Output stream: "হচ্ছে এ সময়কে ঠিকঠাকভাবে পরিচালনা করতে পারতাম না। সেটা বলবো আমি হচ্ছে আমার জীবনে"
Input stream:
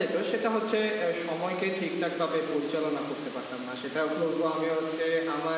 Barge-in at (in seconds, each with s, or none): none